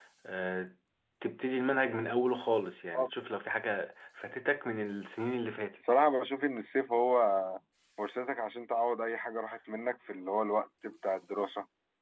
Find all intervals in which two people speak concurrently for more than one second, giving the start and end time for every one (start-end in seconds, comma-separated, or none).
none